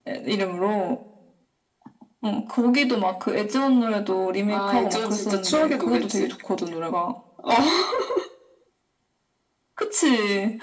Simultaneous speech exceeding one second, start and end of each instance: 4.5-6.3

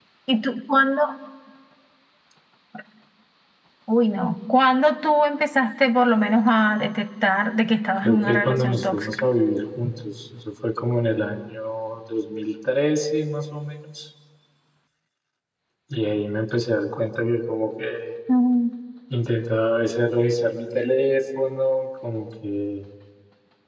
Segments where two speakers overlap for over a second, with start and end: 8.0-9.2

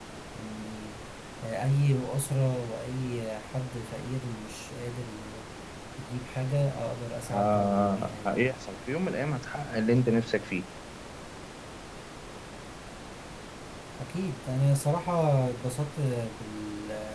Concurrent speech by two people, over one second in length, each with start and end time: 7.2-8.5

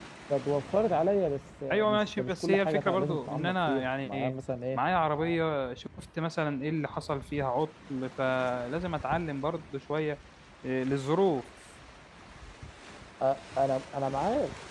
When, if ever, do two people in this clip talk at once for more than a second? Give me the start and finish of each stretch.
1.7-4.3

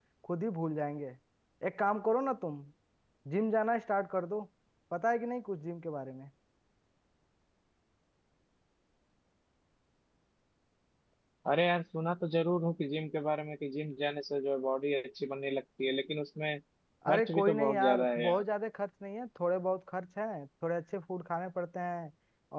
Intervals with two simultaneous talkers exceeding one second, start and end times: 17.1-18.4

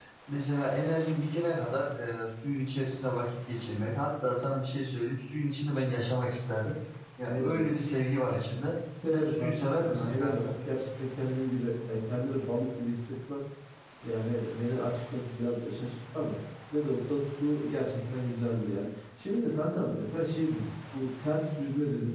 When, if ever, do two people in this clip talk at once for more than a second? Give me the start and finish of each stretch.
9.1-10.4

